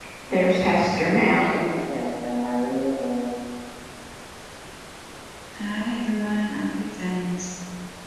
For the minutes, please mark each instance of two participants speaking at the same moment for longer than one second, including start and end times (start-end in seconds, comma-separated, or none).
none